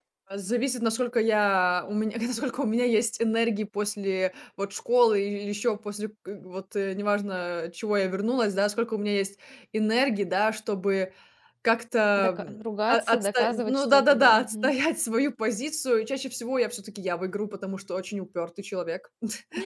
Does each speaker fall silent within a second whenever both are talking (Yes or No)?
No